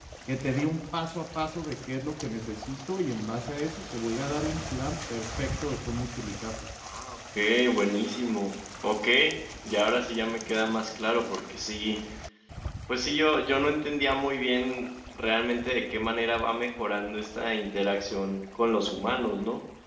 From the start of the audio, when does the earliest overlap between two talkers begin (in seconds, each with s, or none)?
none